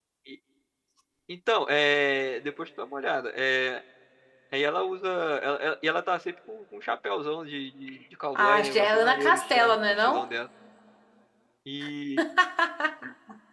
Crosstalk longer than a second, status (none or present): present